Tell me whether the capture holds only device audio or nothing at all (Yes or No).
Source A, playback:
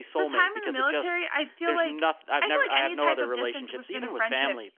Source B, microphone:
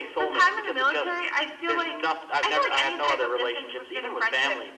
Yes